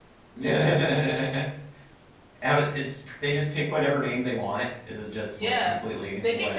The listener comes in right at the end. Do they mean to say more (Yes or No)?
Yes